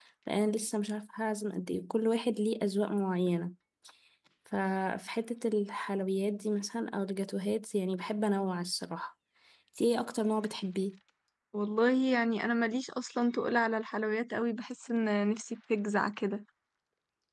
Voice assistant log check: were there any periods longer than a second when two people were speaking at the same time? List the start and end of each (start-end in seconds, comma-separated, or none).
none